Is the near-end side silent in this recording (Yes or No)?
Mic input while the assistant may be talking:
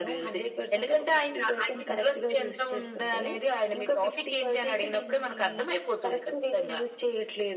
Yes